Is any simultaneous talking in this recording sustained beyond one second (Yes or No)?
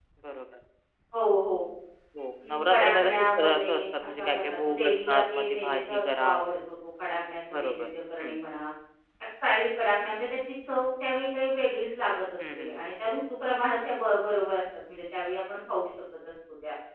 Yes